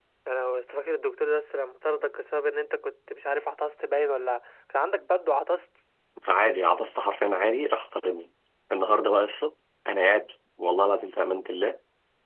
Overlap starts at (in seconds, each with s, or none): none